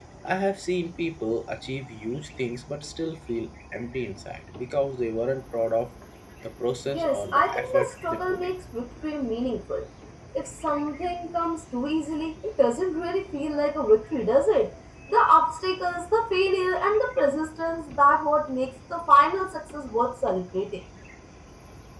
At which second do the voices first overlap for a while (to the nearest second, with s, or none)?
7 s